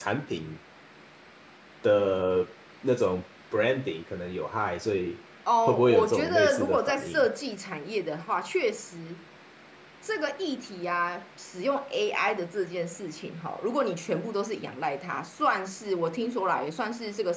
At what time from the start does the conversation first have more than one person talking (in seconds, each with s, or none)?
5.5 s